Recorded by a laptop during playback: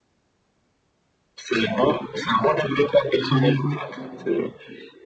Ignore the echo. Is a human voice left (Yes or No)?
Yes